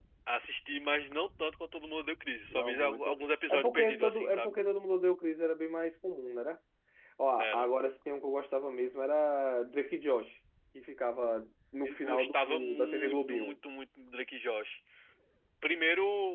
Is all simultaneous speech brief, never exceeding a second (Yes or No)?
No